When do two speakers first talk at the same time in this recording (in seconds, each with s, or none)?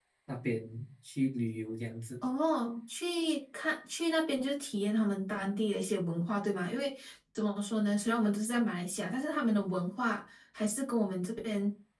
none